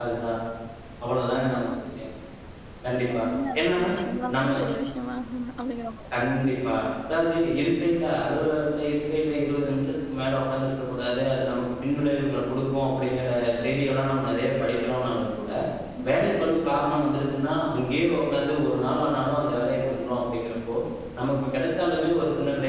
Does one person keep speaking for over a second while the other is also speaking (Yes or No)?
No